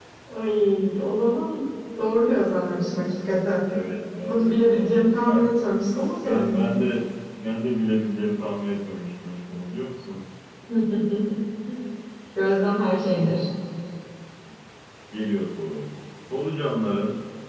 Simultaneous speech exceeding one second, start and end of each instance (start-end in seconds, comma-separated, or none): 4.2-5.5